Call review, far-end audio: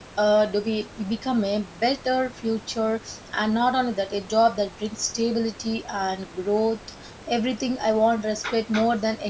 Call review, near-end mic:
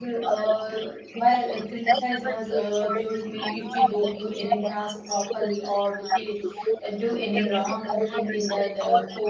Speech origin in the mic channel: both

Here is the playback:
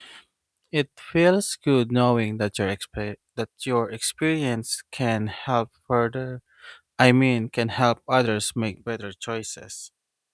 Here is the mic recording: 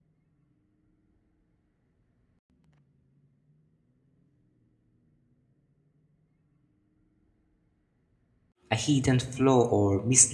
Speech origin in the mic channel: user only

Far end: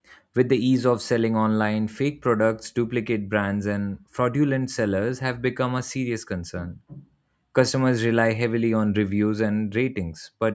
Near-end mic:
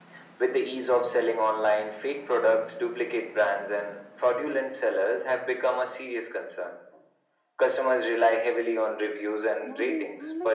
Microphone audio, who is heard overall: both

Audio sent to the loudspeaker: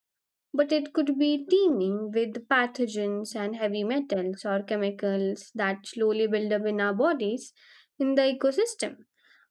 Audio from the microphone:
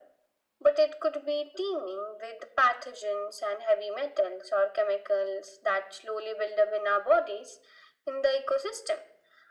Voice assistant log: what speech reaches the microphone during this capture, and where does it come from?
echo only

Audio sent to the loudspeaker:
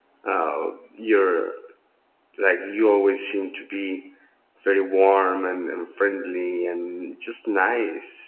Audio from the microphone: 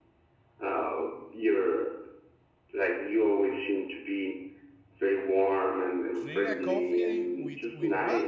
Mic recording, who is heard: both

